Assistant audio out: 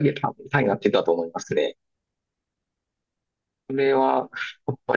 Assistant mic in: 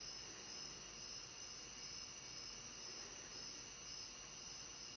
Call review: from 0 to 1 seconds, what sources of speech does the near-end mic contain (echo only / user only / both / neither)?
neither